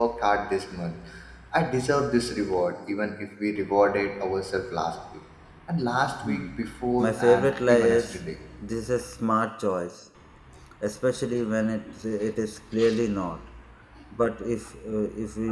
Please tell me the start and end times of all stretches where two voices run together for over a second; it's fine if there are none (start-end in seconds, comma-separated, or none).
7.0-8.2